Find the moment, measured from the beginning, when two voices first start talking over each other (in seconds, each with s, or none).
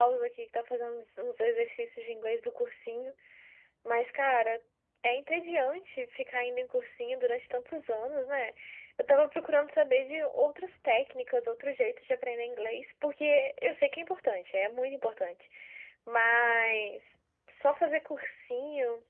none